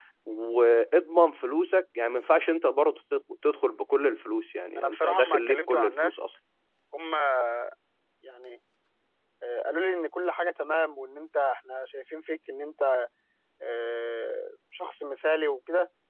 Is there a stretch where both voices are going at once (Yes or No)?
Yes